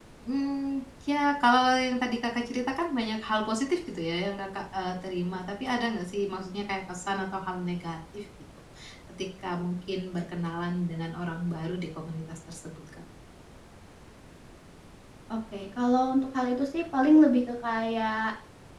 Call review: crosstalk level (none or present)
none